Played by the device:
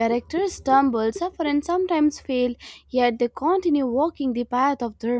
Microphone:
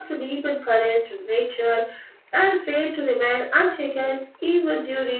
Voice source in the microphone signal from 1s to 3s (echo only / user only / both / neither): user only